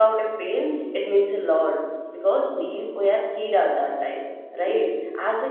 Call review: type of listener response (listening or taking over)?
listening